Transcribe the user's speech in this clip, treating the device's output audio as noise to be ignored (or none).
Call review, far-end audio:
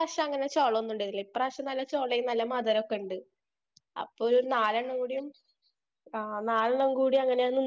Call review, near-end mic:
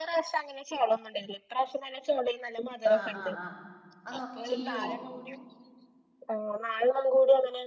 ആഹ് ആഹ് ആഹ് അതോ ചെയ്യുവോ?